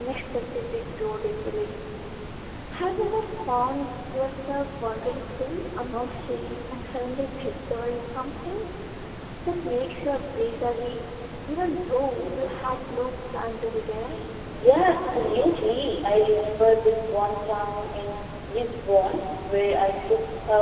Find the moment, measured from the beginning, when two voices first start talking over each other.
none

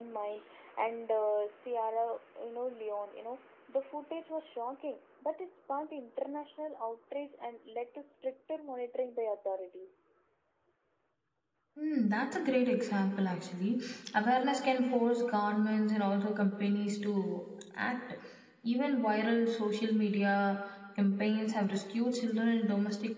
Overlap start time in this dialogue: none

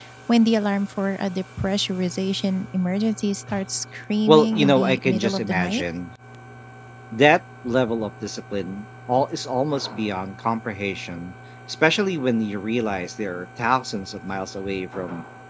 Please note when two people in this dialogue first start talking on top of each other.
4.3 s

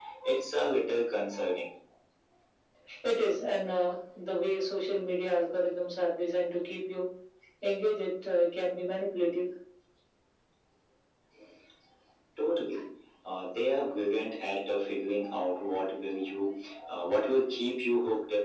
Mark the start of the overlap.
none

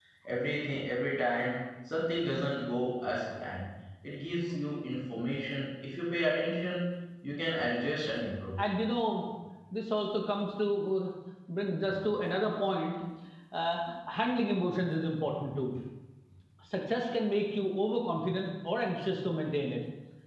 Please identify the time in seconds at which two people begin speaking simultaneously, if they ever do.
none

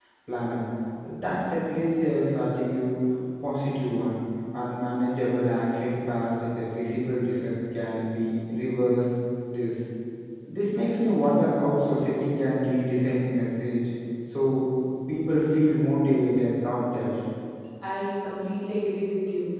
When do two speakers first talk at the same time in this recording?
none

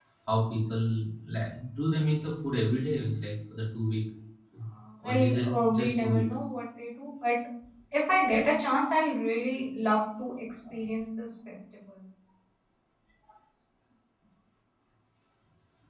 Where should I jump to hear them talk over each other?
5.0 s

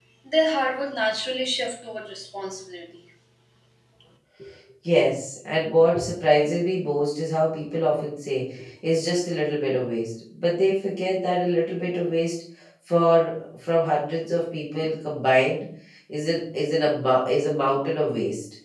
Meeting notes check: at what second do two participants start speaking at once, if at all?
none

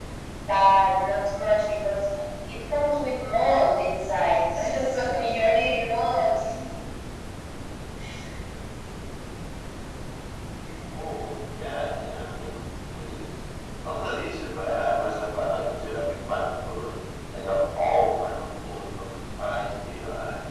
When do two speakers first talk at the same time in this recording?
none

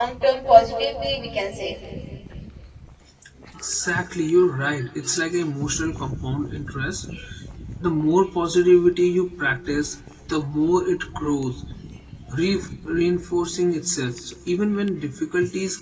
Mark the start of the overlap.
none

